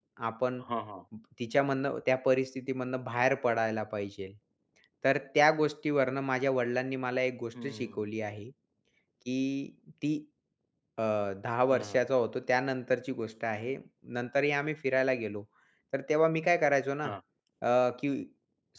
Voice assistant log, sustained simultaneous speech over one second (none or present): none